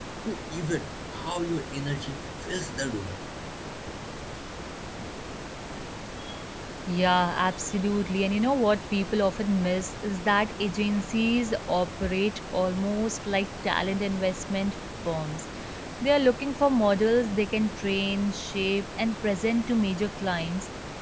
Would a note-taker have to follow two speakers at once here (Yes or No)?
No